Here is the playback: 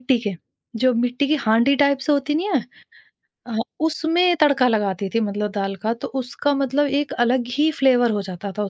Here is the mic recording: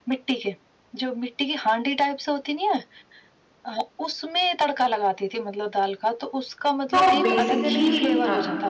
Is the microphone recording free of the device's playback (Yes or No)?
No